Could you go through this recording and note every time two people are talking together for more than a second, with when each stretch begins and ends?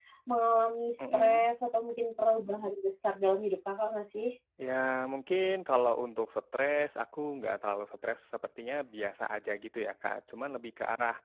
none

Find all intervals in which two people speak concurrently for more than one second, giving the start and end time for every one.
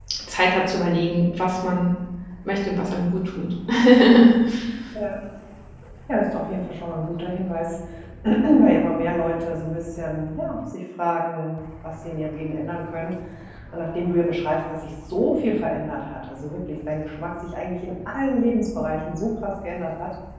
none

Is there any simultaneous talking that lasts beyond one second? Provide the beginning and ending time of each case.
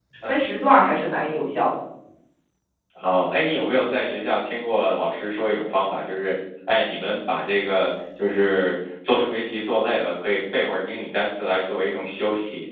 none

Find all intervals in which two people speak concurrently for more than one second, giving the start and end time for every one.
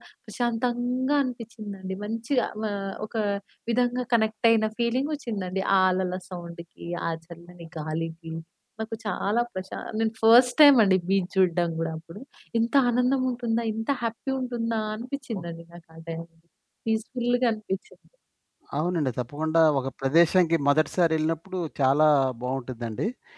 none

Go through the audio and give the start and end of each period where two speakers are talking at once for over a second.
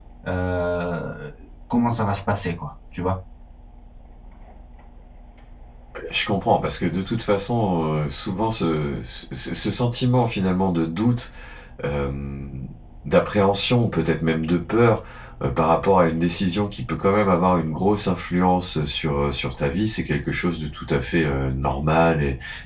none

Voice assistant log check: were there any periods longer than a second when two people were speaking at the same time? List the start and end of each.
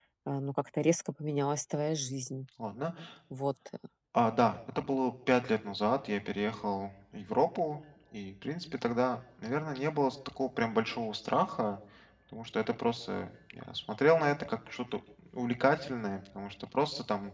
none

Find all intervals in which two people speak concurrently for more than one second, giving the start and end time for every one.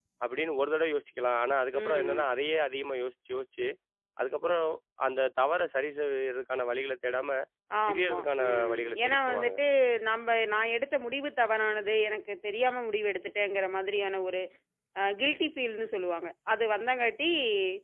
7.9-9.5

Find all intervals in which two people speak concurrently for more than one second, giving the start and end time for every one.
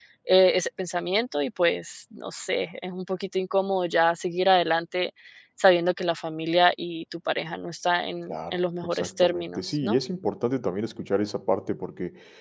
8.3-10.0

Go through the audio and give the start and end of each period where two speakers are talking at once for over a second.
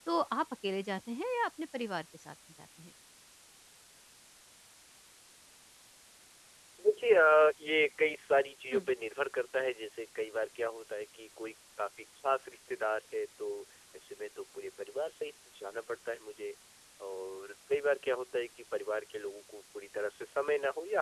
none

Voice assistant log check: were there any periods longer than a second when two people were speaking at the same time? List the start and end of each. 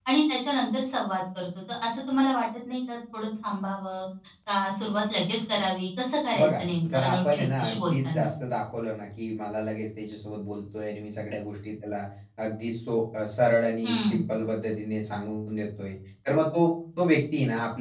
6.4-8.3

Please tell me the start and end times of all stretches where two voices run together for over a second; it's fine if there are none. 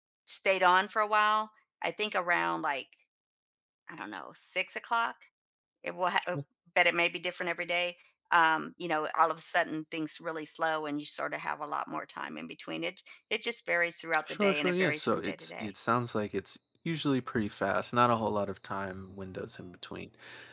14.2-15.7

